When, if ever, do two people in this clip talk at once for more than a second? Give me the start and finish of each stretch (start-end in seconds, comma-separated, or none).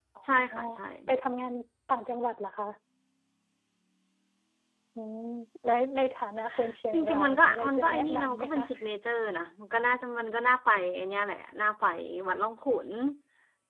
6.9-8.6